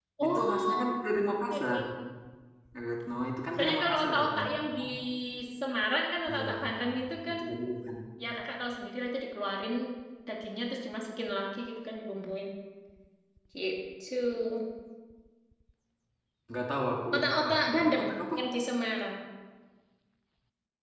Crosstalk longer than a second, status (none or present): present